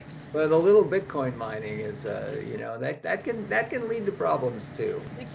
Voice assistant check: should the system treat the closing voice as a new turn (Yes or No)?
Yes